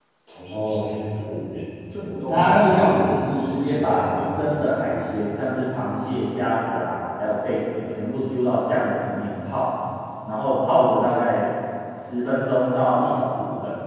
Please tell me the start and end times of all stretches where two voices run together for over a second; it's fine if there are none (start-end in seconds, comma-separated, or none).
2.3-4.6